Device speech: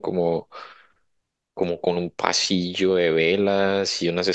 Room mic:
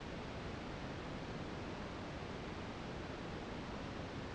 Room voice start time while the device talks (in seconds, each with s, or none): none